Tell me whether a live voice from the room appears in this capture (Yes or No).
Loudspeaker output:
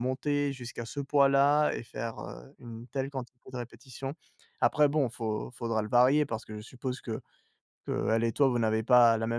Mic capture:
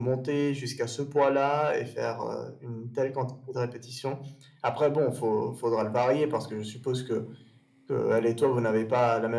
No